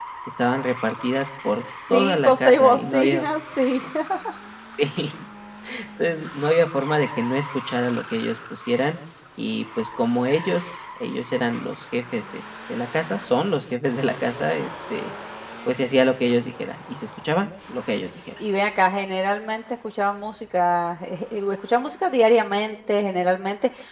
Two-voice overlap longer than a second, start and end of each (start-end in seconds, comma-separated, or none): 1.9-3.2